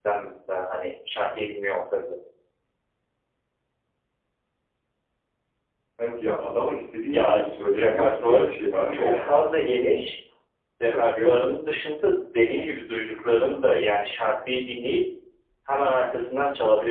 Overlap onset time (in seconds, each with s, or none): 7.1 s